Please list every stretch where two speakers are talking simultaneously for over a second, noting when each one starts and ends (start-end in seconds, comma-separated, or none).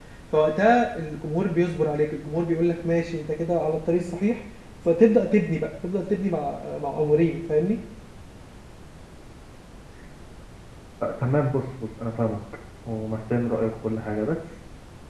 none